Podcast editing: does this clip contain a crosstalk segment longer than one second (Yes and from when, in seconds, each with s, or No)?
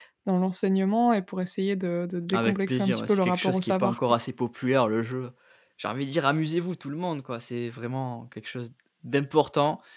Yes, from 2.3 s